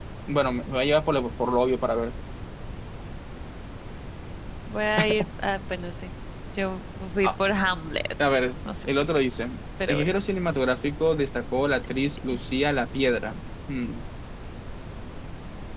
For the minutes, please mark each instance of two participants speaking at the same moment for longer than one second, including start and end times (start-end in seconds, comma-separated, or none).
none